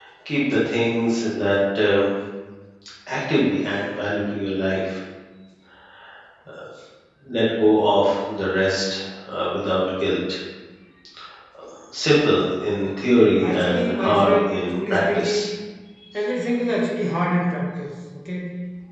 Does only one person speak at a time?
No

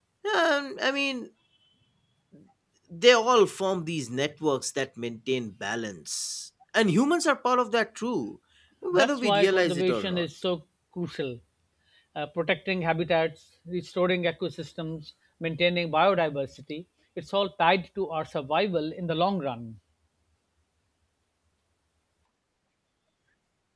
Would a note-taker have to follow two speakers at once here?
Yes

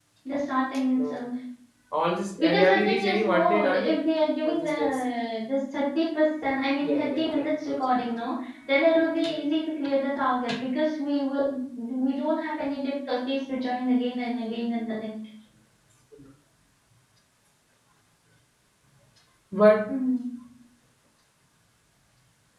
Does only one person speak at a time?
No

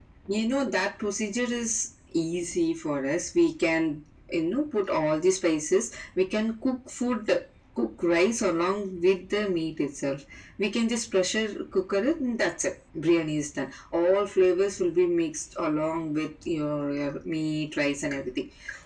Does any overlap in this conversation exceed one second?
No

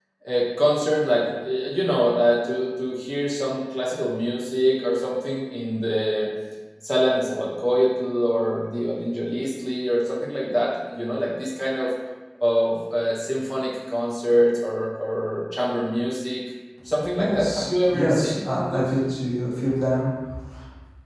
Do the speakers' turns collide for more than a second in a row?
Yes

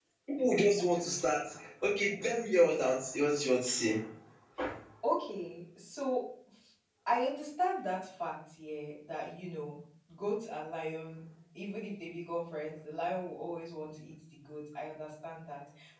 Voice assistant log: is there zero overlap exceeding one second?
Yes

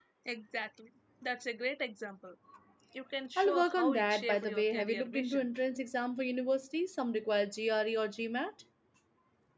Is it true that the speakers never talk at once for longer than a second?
No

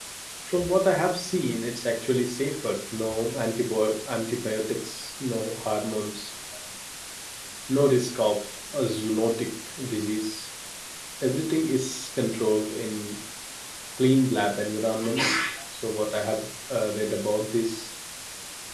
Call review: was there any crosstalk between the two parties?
No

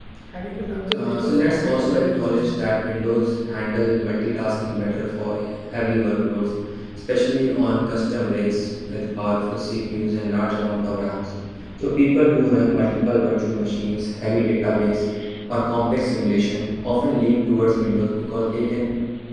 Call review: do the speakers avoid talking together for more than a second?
No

